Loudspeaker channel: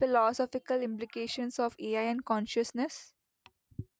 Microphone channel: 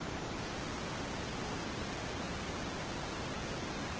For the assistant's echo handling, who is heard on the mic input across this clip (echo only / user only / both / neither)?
neither